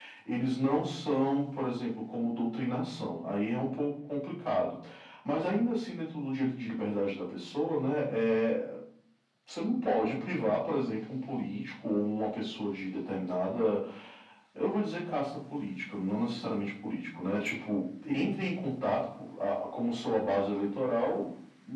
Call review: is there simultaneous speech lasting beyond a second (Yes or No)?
No